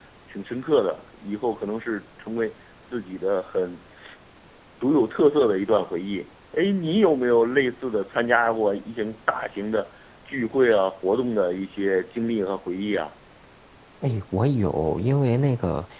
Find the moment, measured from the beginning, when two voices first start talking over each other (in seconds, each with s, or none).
none